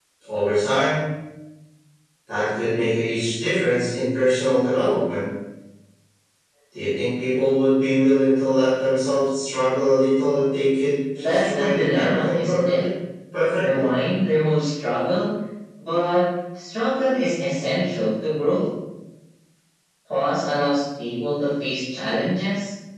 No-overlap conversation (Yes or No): No